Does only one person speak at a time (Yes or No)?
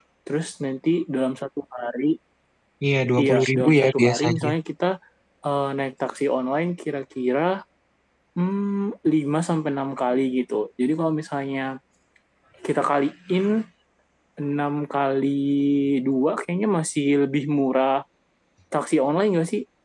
No